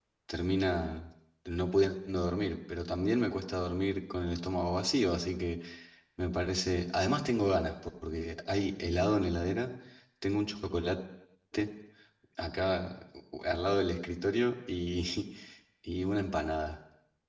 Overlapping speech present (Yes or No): No